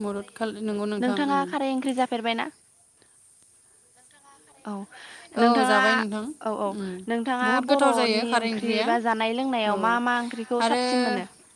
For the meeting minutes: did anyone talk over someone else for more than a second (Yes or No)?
Yes